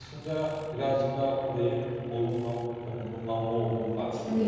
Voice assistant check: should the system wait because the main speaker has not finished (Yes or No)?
No